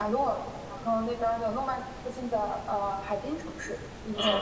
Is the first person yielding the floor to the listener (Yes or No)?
Yes